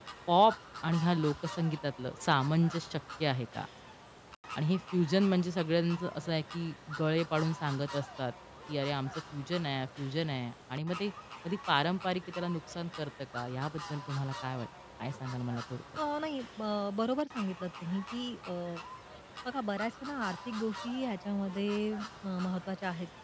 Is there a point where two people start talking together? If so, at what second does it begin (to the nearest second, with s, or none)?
none